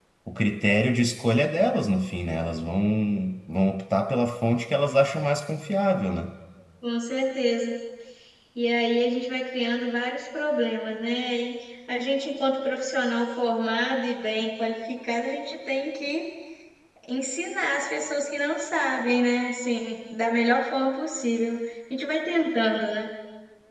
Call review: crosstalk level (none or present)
none